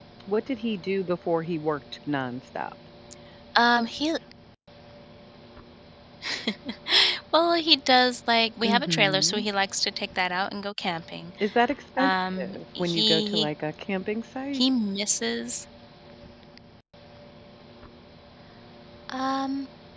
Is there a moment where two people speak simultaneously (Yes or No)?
Yes